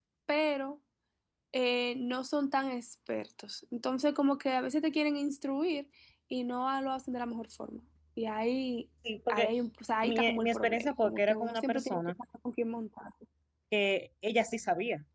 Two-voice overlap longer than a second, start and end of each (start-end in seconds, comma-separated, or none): 10.0-12.0